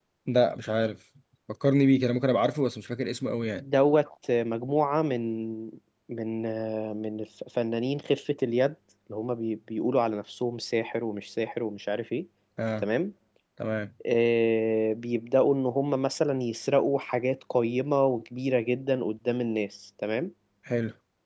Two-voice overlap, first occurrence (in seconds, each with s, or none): none